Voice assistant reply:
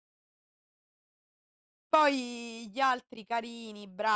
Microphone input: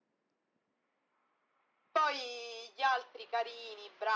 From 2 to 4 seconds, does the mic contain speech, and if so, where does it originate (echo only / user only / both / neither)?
echo only